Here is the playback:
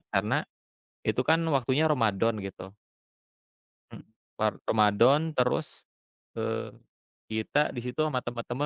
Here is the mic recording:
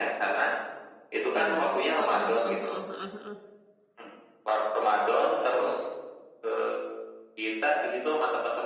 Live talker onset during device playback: 1.4 s

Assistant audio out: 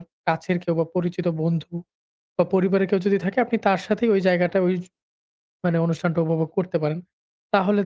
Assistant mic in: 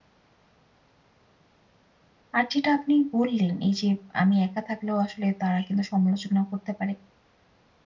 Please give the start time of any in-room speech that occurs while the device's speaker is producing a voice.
2.4 s

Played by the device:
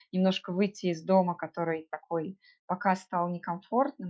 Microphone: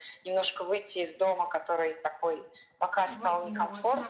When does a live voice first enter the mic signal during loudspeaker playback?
3.0 s

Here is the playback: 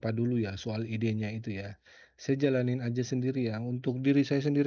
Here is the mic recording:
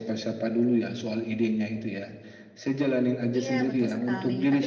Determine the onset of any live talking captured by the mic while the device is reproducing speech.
3.4 s

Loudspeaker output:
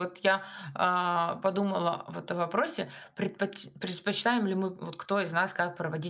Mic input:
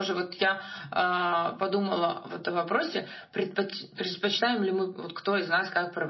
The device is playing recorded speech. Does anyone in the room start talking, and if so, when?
none

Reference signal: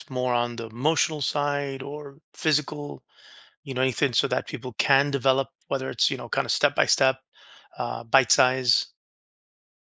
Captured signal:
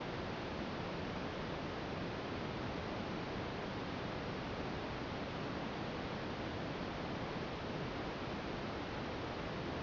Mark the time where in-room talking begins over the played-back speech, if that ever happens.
none

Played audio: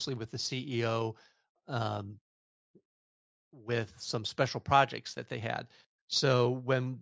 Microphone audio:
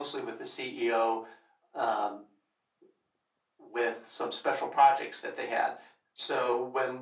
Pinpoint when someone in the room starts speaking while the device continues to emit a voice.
none

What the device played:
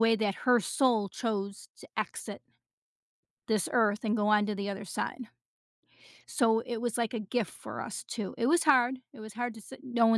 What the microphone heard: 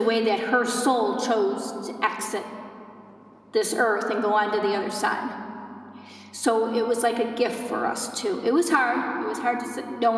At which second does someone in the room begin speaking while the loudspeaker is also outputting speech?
none

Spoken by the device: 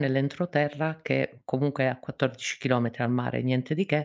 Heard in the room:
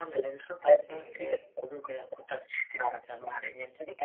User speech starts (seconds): 0.6 s

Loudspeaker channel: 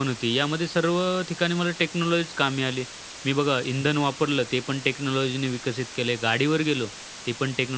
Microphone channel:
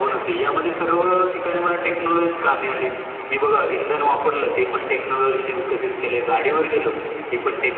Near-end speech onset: none

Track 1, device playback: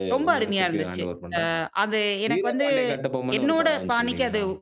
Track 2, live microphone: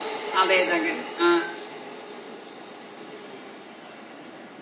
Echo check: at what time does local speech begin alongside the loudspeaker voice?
0.4 s

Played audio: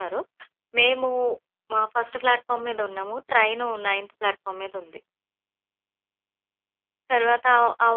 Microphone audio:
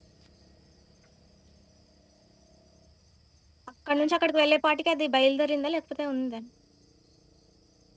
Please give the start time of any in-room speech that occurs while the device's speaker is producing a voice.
3.7 s

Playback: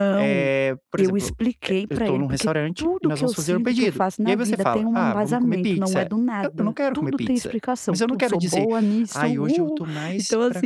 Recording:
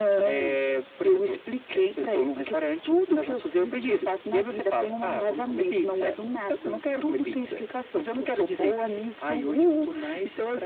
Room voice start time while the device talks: none

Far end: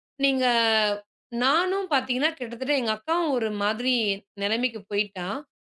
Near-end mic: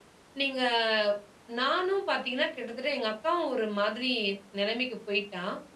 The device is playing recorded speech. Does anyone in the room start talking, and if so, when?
none

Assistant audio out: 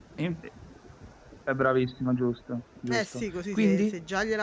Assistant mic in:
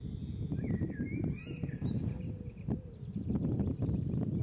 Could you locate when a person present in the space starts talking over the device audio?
none

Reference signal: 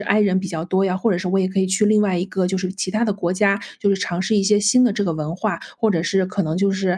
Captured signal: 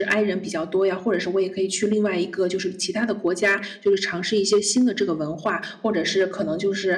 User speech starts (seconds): none

